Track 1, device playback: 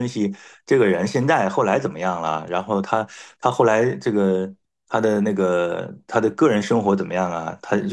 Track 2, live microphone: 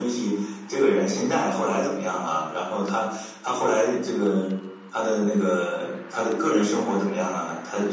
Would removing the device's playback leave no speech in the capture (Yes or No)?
Yes